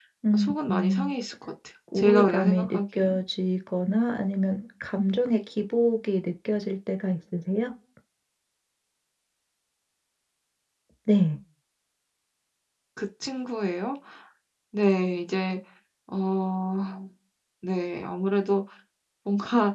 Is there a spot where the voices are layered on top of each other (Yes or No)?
Yes